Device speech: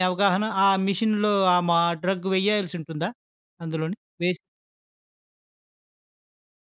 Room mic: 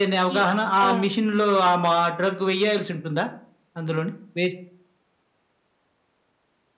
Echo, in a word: present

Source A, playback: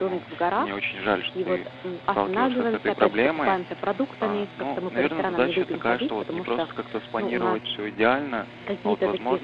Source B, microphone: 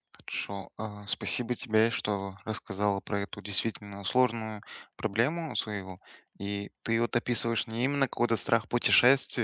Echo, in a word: none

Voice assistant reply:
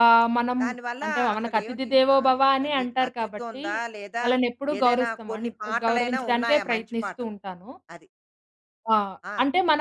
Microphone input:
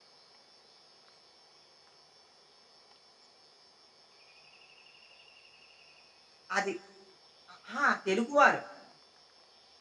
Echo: none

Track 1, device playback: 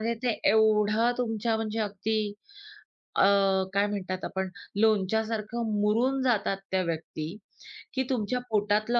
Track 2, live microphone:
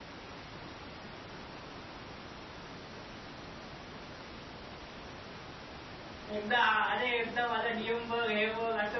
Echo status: none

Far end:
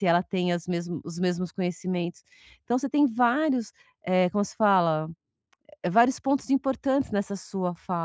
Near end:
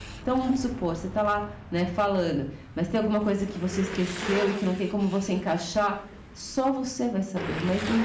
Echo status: none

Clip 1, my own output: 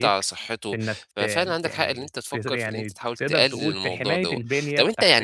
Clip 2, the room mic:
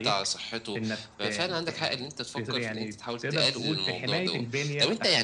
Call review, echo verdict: present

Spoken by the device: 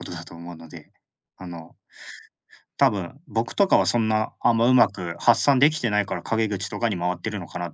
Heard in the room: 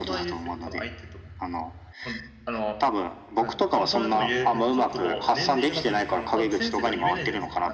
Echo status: present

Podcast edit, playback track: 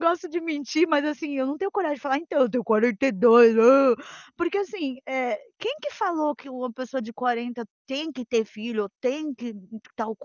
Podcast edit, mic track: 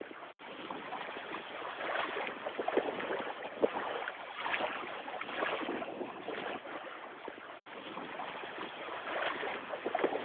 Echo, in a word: none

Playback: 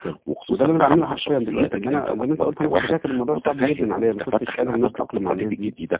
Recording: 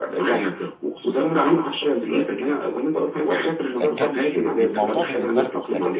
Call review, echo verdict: present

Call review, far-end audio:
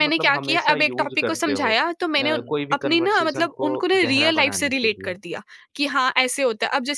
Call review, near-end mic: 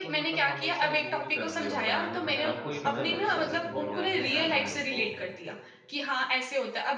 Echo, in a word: present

